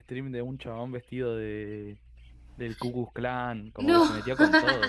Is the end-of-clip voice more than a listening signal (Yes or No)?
No